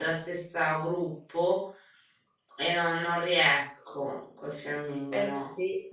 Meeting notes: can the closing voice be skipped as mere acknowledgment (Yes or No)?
No